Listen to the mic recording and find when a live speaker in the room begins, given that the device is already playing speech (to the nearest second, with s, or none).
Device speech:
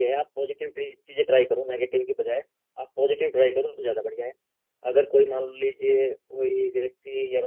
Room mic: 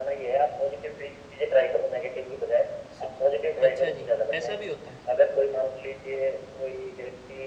3 s